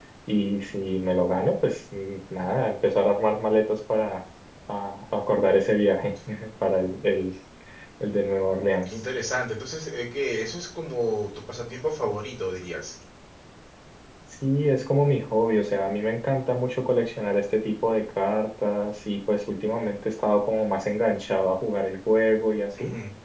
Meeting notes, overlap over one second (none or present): none